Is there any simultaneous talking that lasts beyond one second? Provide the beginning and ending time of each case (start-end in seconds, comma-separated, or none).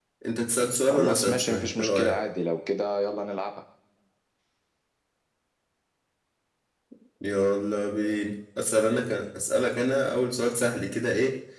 0.9-2.2